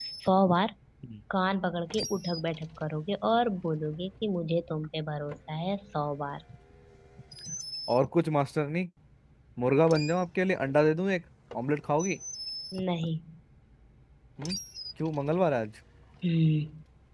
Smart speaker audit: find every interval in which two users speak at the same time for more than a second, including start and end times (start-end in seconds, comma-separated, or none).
none